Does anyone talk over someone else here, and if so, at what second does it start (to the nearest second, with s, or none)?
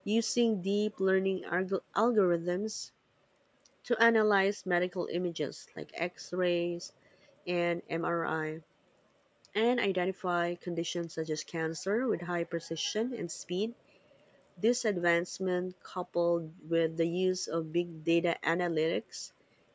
none